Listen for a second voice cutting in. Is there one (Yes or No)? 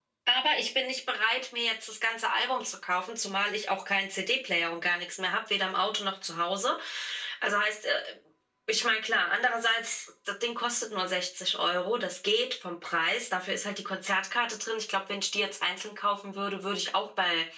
No